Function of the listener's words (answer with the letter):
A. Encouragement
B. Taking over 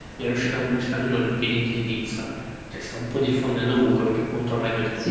B